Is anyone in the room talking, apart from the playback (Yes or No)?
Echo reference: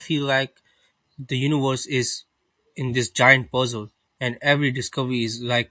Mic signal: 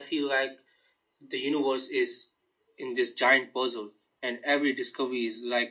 No